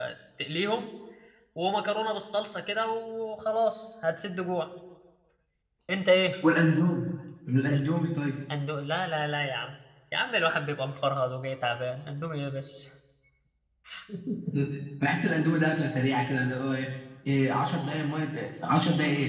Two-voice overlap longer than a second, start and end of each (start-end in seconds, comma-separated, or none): none